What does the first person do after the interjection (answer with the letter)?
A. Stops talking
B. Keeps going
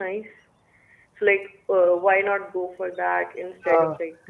A